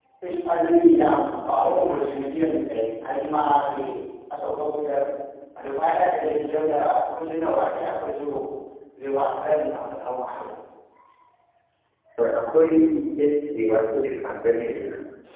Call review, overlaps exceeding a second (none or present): none